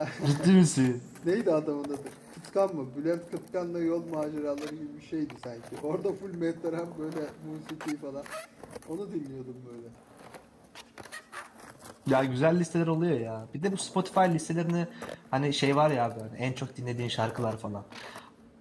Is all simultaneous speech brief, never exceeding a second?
Yes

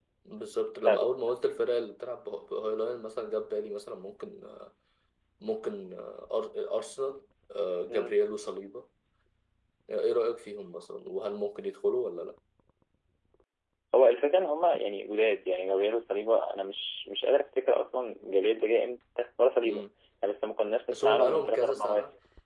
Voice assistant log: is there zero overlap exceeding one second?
No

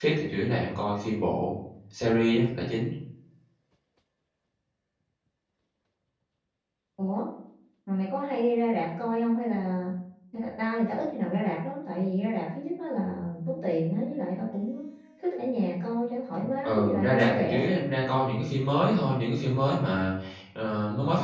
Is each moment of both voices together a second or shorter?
No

